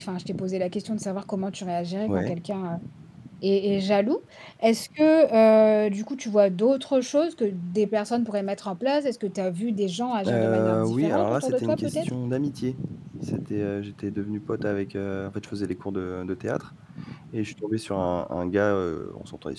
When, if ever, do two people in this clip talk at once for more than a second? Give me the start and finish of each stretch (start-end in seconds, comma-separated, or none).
10.2-12.1